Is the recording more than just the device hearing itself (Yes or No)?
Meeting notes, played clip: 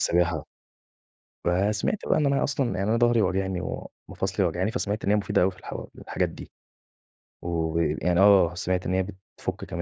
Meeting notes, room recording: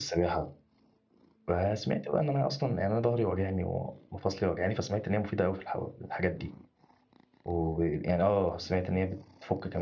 No